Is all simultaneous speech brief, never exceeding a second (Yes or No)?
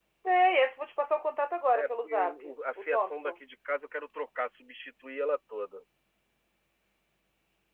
No